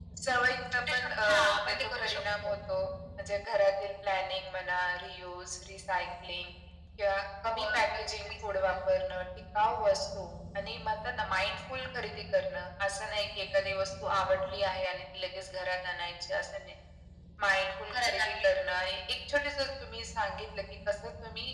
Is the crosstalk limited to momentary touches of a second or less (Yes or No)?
No